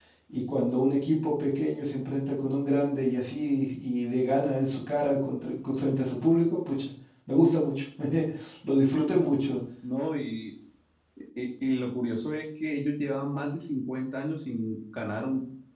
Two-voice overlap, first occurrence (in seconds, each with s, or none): none